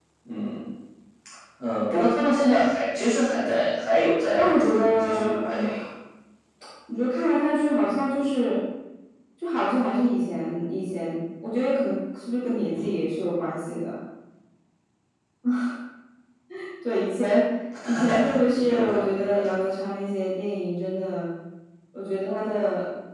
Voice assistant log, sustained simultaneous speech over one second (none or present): present